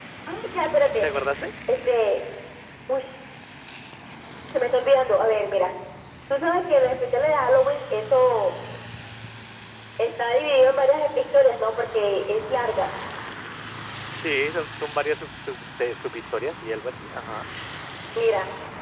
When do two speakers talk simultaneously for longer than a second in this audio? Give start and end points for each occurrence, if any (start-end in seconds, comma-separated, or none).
none